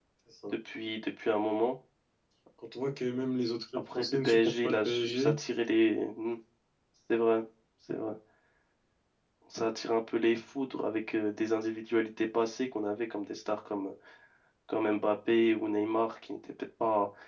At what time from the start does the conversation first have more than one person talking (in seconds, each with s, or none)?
3.9 s